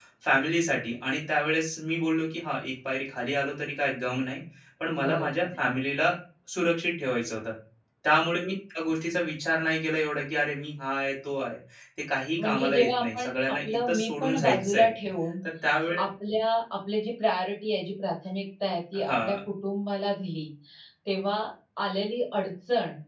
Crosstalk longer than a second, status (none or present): present